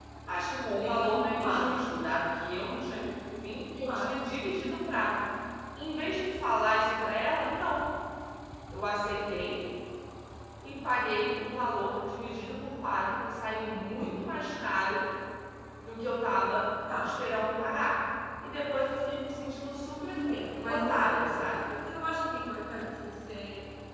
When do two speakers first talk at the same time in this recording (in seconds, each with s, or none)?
0.6 s